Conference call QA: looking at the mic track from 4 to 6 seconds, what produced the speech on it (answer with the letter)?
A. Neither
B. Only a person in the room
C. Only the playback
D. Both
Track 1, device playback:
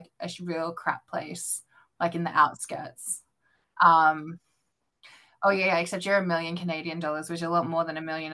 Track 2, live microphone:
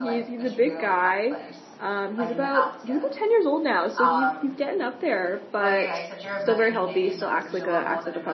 D